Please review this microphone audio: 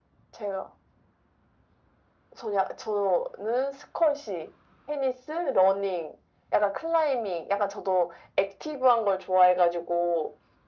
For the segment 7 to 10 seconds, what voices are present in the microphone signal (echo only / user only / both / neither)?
echo only